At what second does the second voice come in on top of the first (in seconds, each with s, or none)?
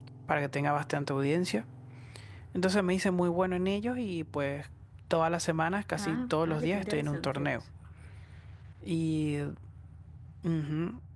6.0 s